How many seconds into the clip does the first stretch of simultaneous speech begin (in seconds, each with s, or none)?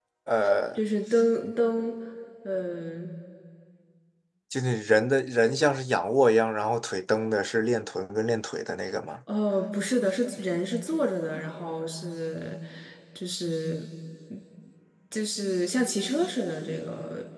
none